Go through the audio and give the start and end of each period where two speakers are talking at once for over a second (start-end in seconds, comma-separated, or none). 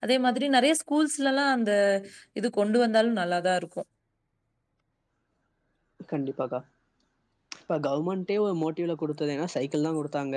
none